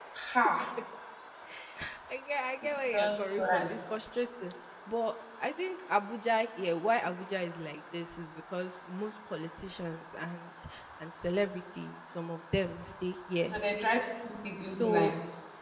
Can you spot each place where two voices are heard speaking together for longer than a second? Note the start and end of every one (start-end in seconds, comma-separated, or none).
2.6-3.9